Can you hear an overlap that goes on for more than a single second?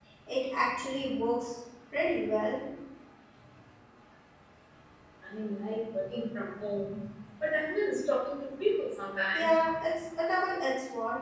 No

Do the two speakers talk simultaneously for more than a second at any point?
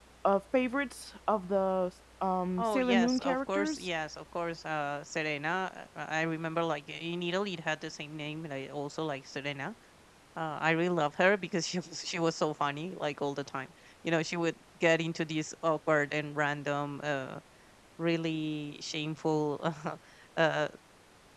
Yes, from 2.6 s

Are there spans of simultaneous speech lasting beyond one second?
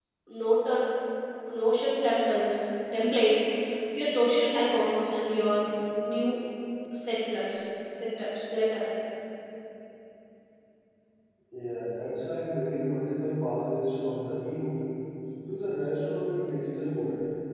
No

